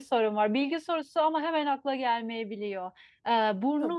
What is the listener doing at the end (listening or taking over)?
listening